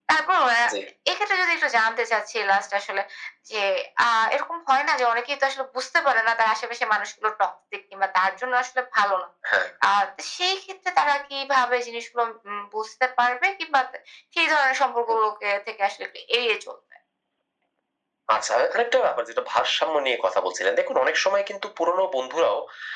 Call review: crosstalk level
none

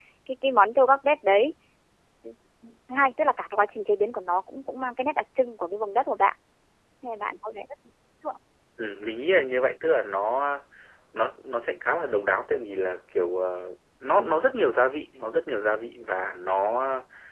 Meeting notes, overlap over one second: none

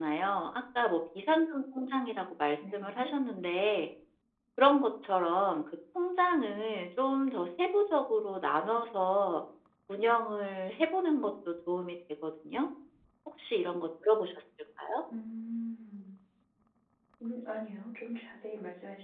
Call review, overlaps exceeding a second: none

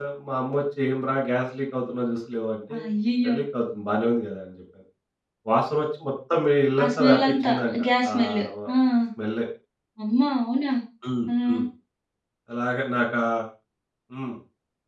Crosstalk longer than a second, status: present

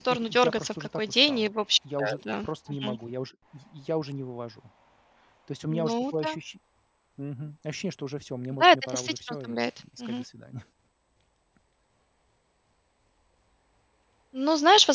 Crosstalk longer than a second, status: present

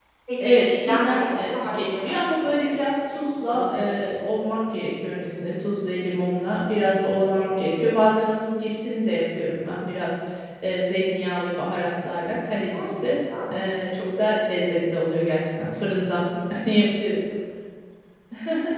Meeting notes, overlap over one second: present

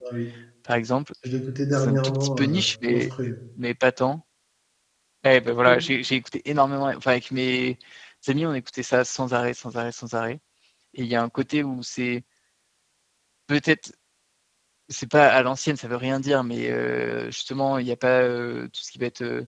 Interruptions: present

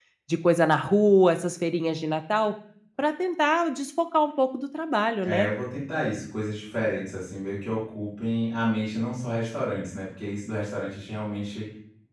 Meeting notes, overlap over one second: none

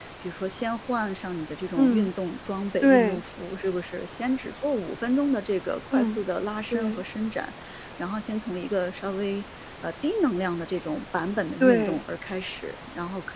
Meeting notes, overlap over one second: none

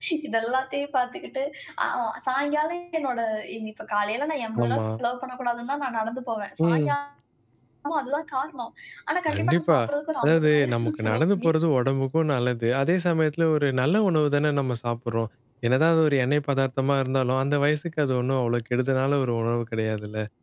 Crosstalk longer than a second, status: present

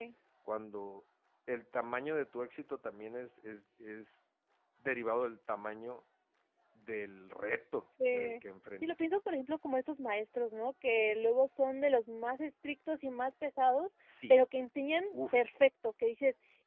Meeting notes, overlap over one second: none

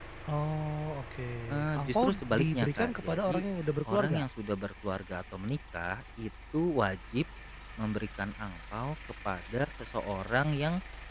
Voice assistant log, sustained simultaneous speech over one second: present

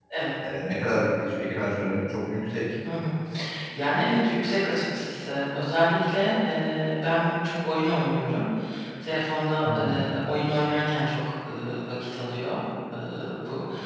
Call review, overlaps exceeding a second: none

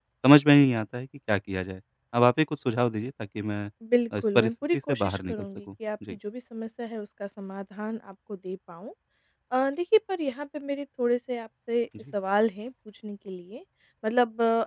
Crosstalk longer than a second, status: present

